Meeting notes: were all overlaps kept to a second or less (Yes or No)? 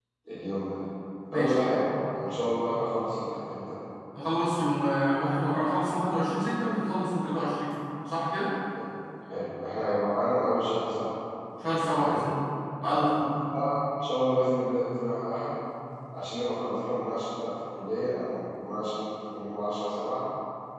Yes